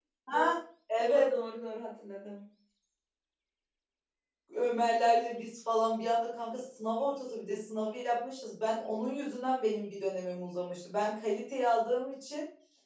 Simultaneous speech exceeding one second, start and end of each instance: none

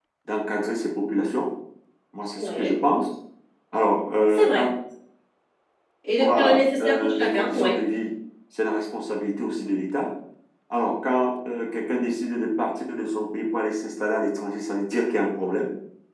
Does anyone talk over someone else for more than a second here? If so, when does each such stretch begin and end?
6.2-7.8

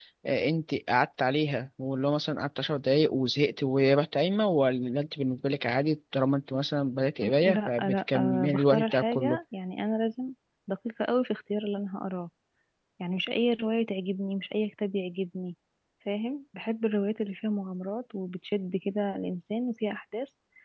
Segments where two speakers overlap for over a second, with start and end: 7.2-9.4

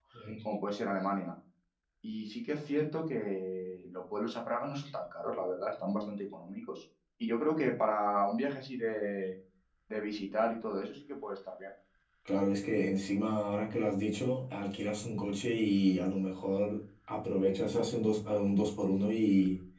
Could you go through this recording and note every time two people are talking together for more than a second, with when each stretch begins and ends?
none

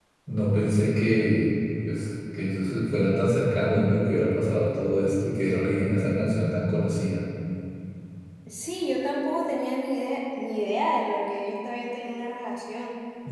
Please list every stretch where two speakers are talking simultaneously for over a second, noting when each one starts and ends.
none

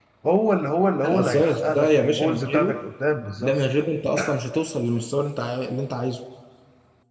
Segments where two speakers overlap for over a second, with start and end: 1.0-2.7

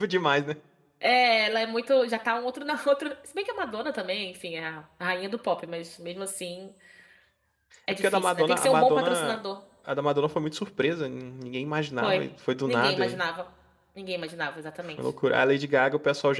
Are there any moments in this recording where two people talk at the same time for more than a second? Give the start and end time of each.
8.0-9.4

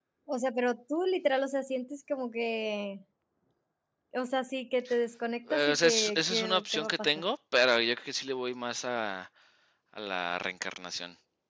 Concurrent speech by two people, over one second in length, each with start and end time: 5.5-7.3

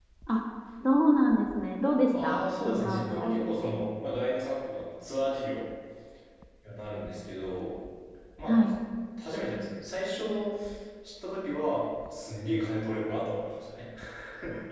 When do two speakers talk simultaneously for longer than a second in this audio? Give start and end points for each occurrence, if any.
2.2-3.7

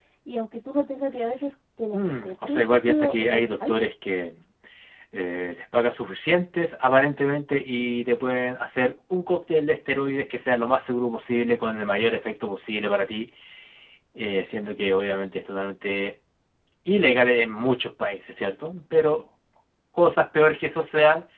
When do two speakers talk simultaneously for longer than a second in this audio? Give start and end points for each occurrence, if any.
1.9-3.8

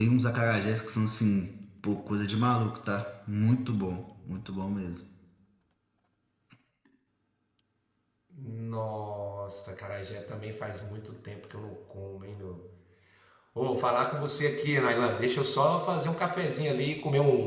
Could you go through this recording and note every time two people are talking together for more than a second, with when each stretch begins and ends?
none

